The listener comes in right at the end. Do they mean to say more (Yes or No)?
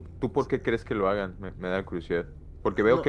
No